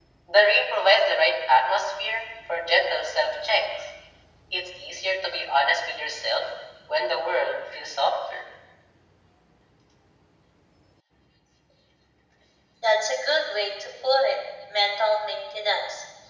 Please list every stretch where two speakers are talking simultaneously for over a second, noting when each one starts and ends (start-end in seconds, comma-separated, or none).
none